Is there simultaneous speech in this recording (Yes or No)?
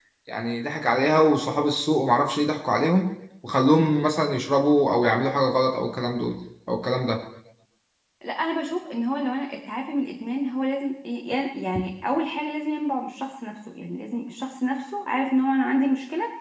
No